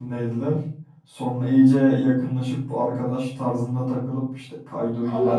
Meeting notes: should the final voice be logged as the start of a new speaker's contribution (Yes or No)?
Yes